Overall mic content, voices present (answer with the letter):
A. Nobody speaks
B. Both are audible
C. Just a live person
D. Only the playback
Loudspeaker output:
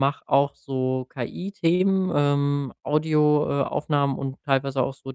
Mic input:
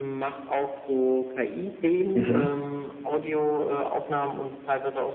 B